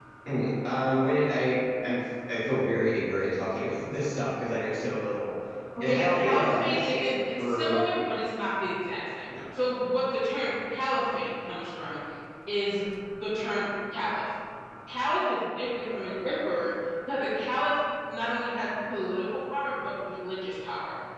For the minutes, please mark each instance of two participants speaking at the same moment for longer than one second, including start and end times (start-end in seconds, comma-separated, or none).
5.8-7.8